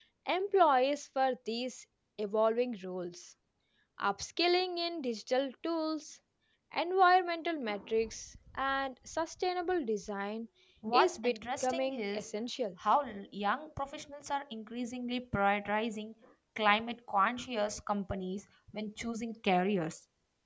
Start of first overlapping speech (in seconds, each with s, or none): 10.9 s